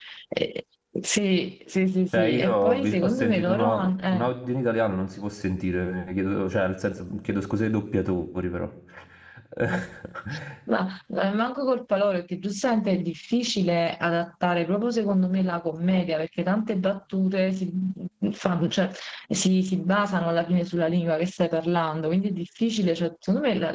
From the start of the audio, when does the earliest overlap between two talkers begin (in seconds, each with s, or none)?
2.1 s